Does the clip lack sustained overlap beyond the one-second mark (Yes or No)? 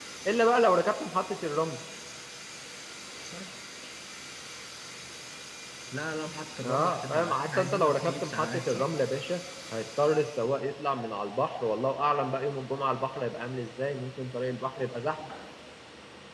No